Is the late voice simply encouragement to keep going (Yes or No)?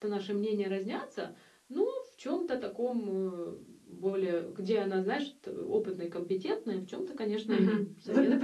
No